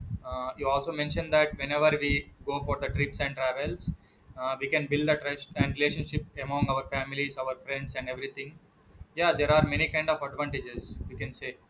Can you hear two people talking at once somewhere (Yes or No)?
No